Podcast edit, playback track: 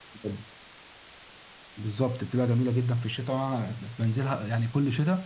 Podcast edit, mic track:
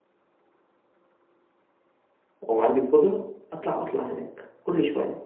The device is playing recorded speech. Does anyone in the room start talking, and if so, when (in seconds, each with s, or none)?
2.4 s